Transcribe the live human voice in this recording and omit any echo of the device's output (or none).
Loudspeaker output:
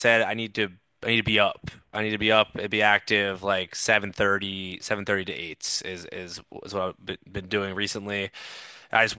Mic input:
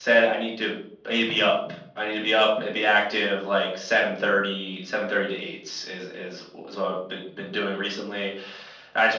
none